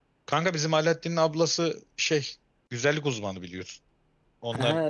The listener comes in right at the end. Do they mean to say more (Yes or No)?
No